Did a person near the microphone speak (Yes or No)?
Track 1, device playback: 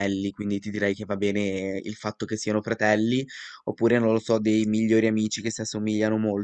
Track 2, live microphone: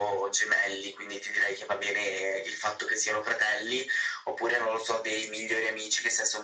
No